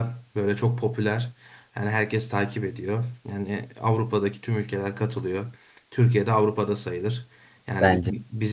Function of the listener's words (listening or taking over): listening